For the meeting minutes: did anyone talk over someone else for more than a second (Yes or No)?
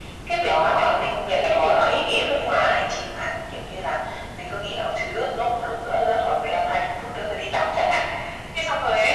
Yes